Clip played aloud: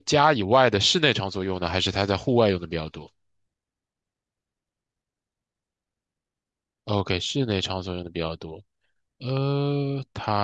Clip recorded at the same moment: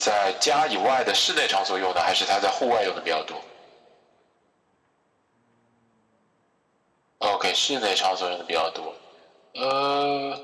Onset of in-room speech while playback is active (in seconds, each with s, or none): none